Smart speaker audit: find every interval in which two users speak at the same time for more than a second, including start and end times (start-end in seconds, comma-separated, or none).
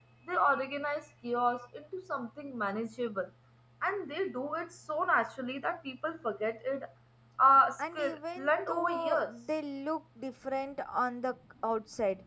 7.8-9.3